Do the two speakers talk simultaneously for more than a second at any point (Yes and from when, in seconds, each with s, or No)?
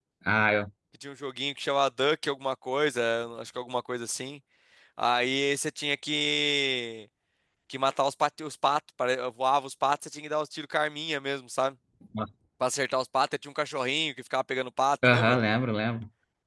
No